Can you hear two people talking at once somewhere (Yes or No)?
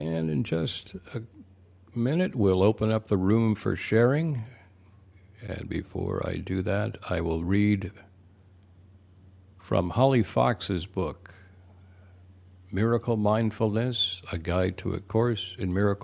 No